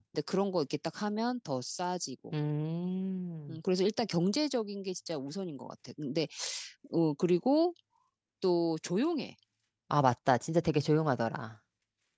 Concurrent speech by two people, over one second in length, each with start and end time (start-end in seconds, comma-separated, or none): none